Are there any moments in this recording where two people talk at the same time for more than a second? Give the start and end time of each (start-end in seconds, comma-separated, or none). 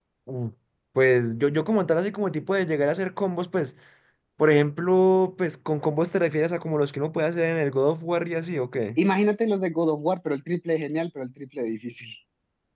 none